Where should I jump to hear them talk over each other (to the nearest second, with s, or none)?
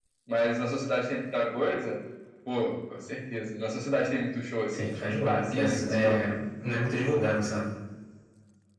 5 s